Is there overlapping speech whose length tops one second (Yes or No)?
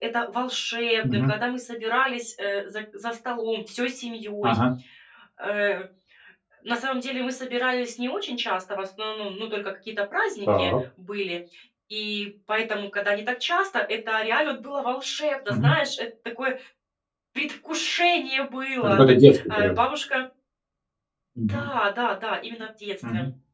No